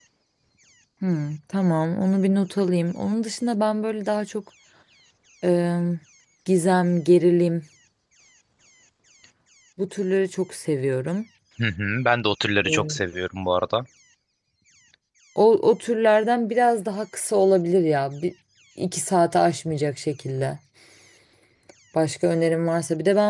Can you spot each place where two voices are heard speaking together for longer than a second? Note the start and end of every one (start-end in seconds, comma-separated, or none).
none